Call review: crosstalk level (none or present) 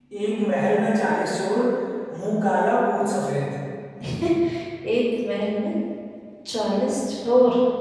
none